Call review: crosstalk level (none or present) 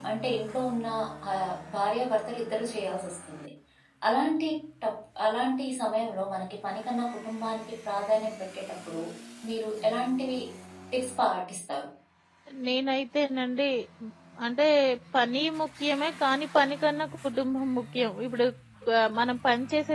none